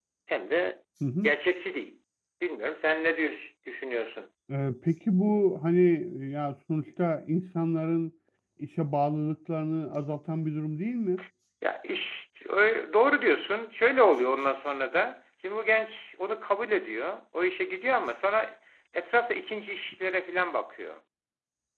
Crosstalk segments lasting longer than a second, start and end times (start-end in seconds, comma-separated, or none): none